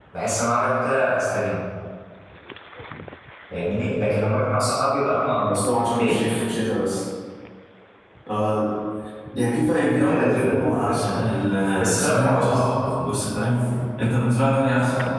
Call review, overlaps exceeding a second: present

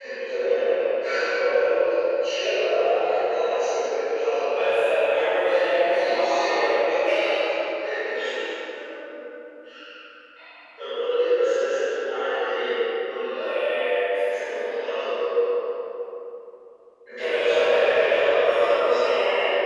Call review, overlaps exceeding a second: present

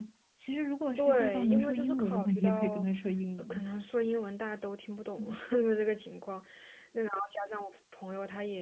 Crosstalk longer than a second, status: present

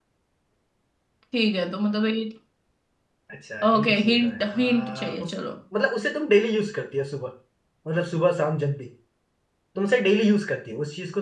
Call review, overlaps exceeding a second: present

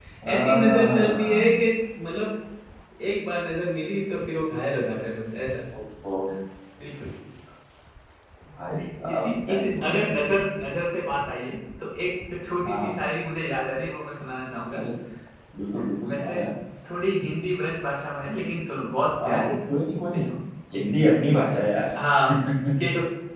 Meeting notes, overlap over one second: present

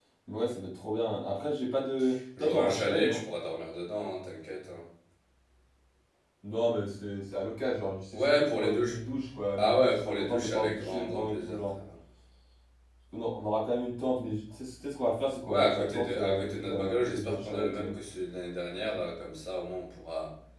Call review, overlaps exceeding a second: present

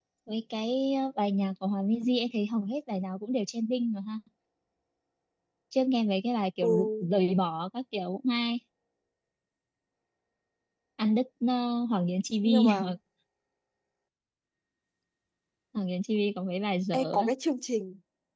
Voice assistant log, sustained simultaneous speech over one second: none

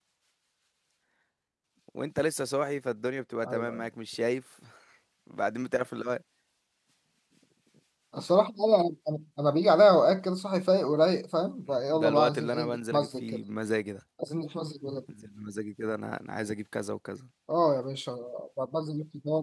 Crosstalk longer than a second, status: present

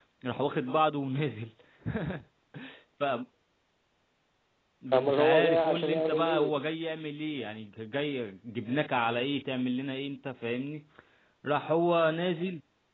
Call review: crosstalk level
present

